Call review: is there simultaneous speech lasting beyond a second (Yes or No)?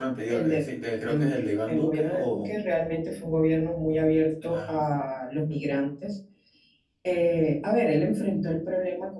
Yes